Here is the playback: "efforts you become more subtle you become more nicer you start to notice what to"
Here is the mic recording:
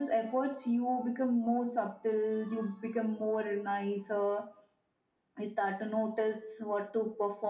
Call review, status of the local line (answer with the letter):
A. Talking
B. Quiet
B